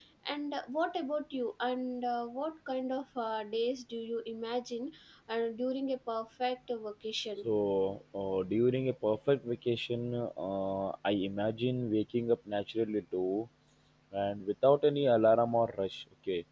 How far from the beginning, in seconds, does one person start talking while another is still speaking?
none

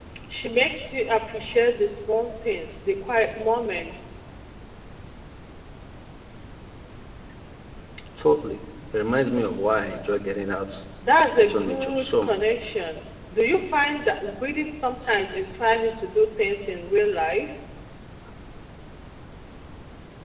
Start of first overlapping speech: 11.4 s

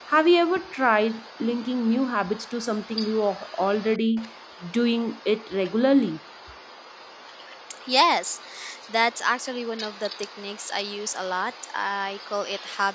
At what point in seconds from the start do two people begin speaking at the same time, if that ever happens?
none

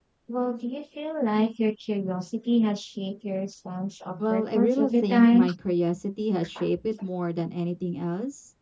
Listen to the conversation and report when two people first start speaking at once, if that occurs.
4.2 s

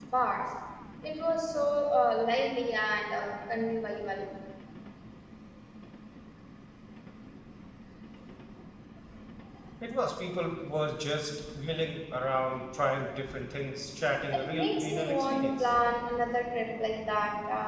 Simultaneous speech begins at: 14.3 s

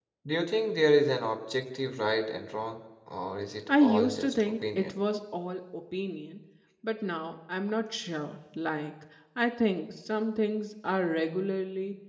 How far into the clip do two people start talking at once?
3.7 s

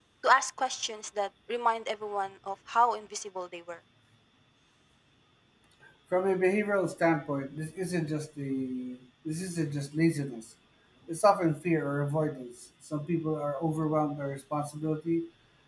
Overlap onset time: none

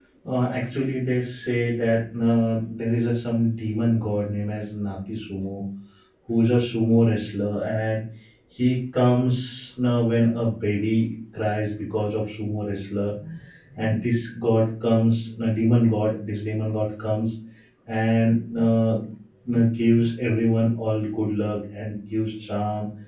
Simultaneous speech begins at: none

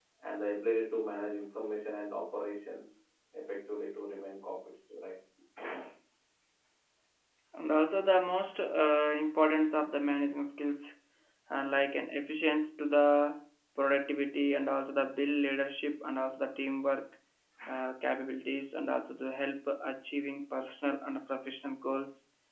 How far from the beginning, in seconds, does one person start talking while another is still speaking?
none

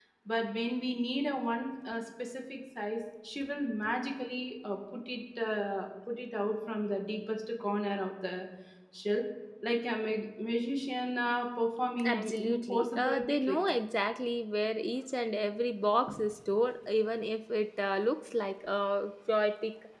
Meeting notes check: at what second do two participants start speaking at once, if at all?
12.0 s

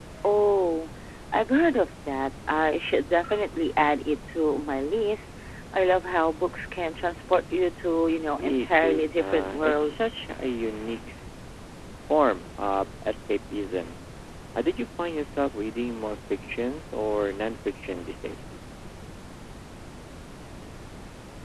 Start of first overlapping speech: 8.4 s

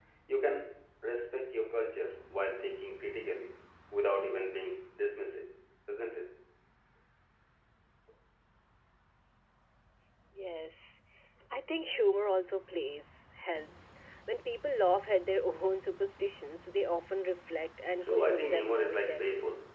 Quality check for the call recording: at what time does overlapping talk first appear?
18.0 s

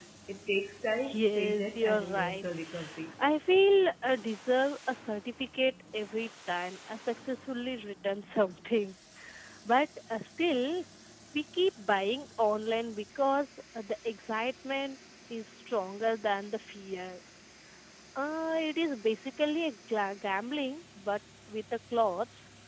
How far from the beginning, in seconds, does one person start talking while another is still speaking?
1.1 s

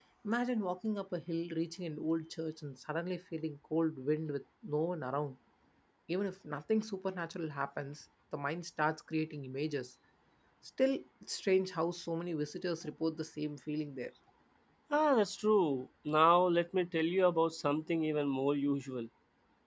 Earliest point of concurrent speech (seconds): none

